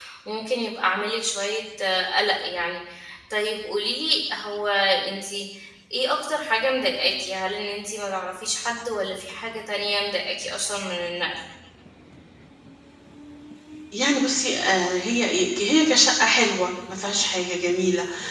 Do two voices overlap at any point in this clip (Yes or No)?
No